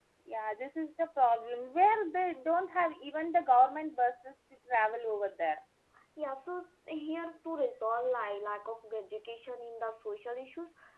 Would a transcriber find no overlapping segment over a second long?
Yes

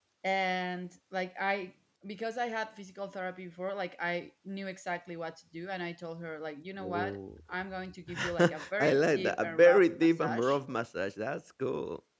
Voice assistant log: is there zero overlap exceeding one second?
No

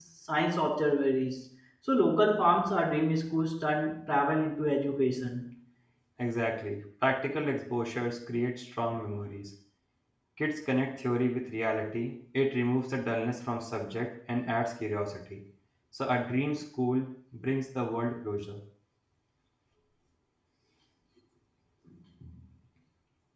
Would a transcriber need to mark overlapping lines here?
No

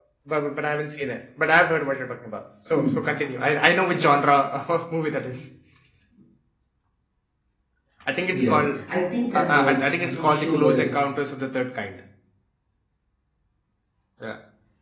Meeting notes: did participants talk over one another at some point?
Yes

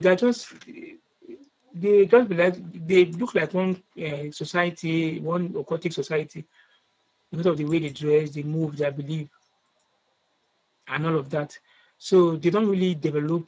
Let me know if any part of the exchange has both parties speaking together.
No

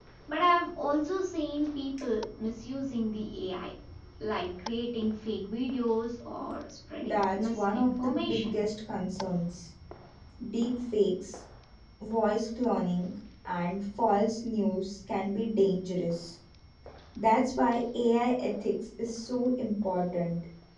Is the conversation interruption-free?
No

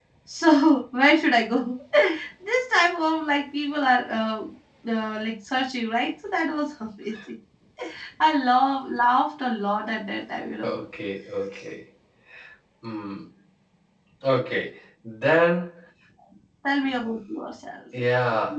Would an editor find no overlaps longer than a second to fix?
Yes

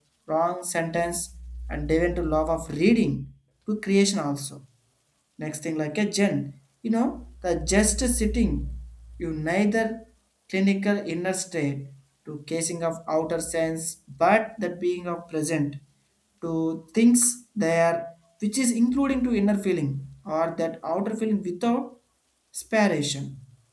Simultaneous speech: No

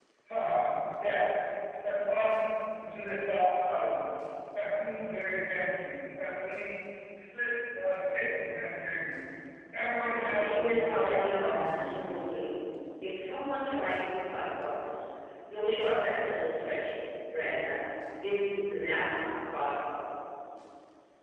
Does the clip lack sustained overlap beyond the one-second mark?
No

